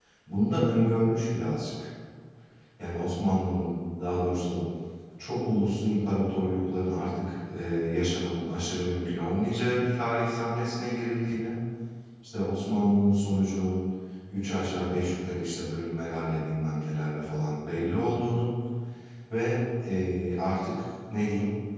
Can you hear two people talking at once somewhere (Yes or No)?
No